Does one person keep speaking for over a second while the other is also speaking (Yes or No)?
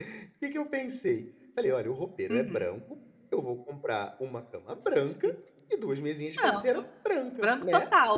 No